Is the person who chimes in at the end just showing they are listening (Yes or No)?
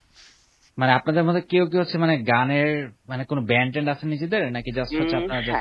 No